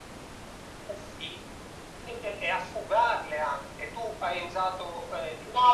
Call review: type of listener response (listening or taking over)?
taking over